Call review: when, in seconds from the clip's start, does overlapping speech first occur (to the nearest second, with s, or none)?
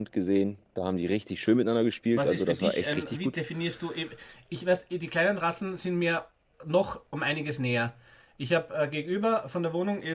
2 s